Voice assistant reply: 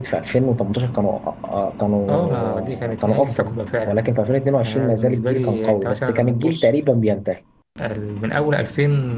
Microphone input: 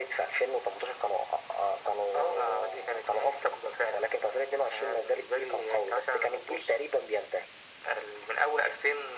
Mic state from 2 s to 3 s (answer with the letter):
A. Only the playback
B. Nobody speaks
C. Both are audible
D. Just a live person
A